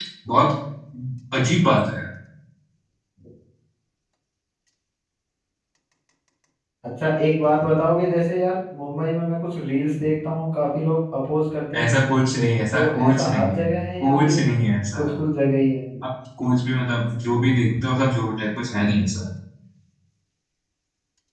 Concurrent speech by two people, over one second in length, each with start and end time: 11.7-14.4

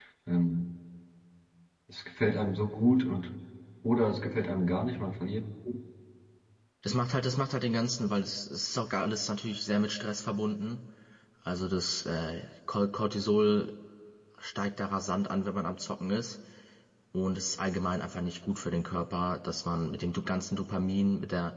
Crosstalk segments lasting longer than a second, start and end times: none

